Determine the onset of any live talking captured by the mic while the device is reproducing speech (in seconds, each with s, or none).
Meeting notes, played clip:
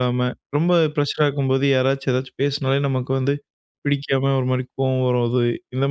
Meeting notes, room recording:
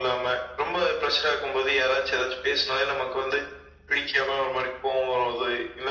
none